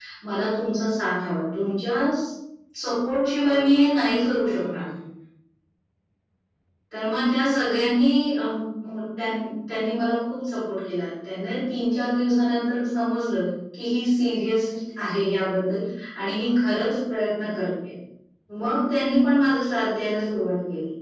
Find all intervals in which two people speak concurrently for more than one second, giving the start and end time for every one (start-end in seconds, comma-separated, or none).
3.5-4.8